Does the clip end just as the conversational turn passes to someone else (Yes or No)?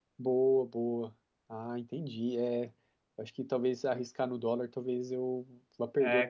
Yes